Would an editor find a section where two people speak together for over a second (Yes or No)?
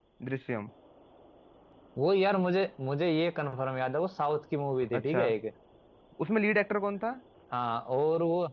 No